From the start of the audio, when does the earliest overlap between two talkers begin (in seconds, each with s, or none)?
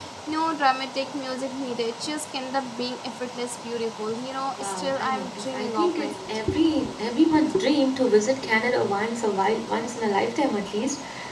4.5 s